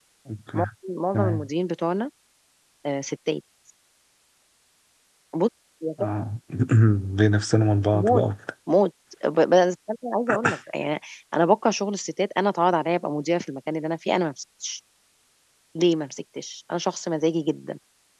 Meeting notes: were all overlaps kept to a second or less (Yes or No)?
Yes